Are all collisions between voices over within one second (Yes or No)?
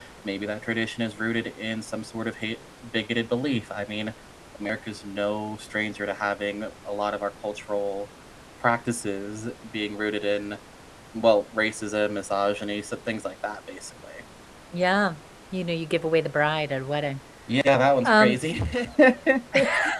Yes